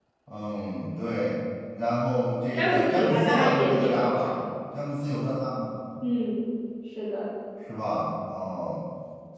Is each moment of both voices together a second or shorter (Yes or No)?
No